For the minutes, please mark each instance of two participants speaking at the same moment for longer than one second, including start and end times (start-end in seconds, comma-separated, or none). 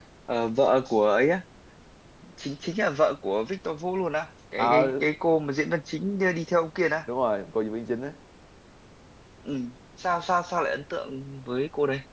none